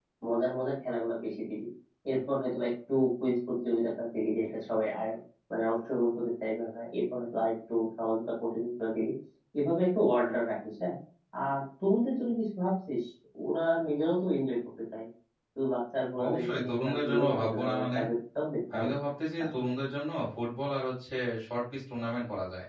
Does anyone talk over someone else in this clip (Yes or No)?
Yes